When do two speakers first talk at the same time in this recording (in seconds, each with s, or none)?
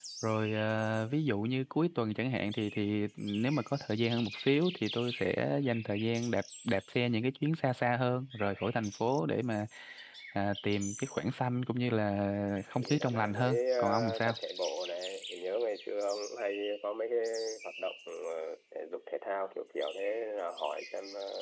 12.6 s